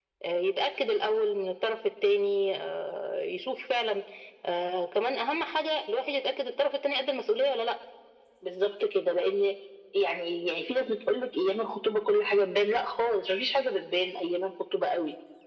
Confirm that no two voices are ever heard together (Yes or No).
Yes